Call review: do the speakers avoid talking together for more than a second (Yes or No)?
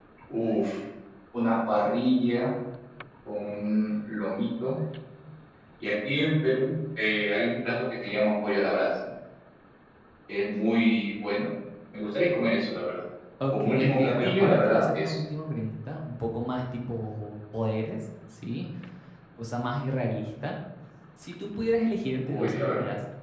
No